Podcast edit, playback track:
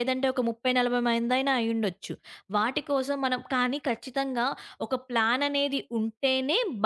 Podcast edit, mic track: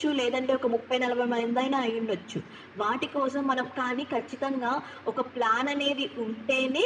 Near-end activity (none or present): none